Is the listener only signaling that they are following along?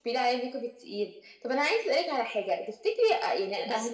Yes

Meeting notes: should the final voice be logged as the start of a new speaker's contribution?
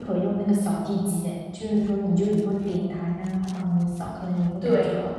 Yes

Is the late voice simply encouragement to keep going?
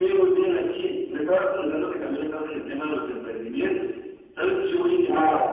Yes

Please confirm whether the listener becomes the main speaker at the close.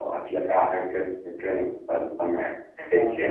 Yes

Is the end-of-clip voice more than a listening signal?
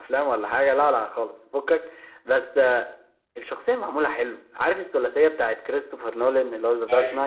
Yes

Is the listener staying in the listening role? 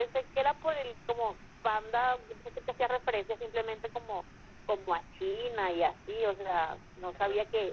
Yes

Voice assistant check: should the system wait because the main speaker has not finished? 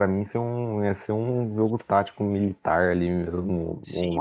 No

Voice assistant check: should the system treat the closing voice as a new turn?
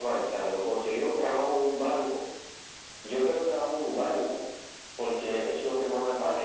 Yes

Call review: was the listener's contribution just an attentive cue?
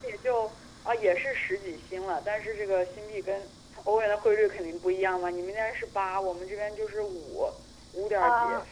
Yes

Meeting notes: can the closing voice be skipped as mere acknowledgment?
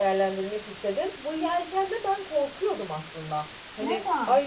Yes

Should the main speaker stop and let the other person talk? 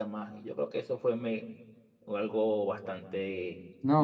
Yes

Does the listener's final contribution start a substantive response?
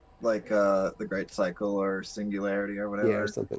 Yes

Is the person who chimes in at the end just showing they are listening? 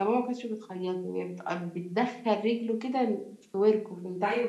No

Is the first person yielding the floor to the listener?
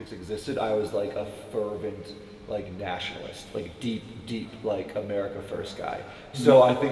No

